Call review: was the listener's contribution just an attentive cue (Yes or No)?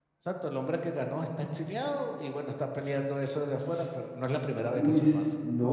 No